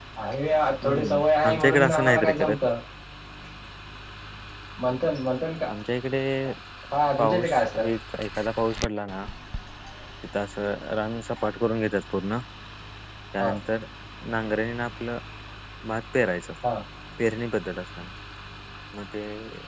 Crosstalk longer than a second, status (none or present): present